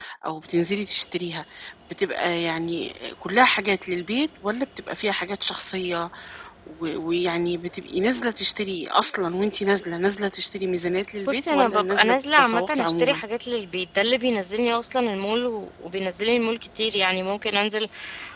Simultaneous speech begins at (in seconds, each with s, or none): 11.2 s